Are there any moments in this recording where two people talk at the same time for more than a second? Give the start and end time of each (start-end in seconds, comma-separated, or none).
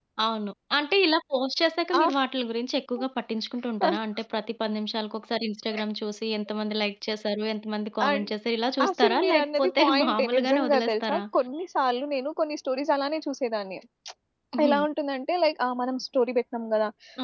8.9-11.2